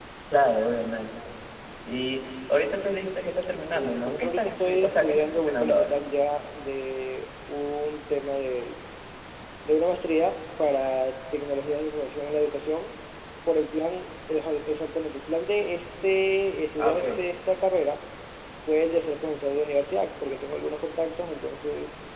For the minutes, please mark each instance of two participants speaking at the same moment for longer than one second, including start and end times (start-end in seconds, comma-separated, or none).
3.7-6.0